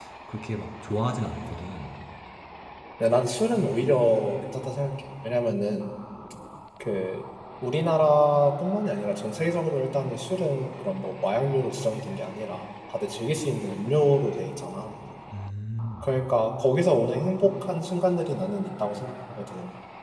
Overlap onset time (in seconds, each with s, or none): none